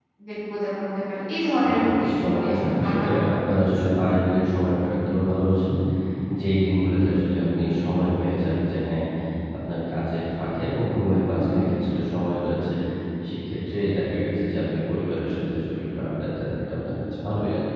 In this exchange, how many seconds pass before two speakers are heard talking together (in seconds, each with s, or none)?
1.6 s